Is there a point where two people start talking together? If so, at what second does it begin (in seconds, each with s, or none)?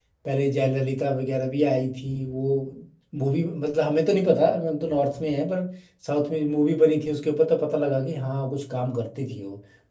none